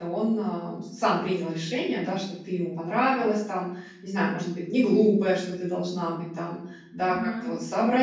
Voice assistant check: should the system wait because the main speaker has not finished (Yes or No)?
Yes